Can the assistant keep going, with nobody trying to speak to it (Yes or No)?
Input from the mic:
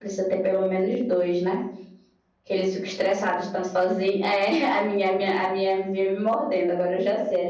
No